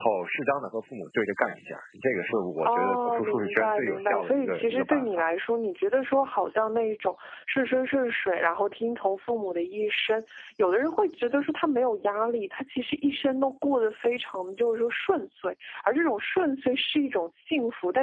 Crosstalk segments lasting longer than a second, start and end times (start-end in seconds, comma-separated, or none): 2.6-5.3